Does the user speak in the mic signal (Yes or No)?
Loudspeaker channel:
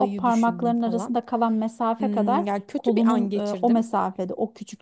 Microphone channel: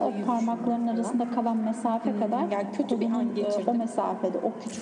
No